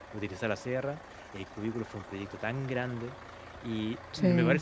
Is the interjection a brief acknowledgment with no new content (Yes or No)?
Yes